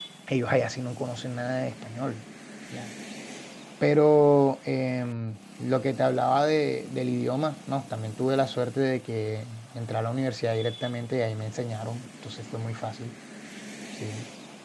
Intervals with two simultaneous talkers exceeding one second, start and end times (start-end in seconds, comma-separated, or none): none